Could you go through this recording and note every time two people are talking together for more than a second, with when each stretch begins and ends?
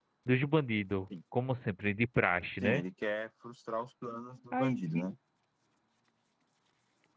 none

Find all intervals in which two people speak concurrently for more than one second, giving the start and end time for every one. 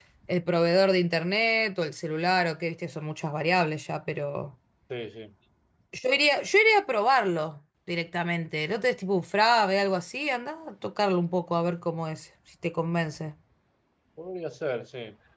none

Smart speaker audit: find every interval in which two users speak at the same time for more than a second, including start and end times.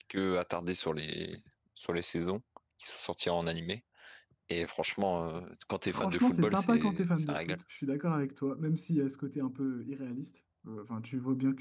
5.9-7.6

